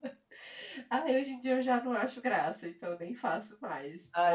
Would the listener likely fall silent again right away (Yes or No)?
No